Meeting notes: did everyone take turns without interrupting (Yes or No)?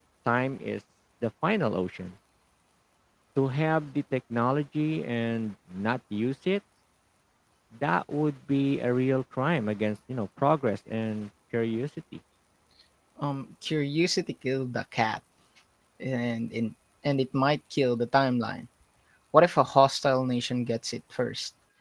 Yes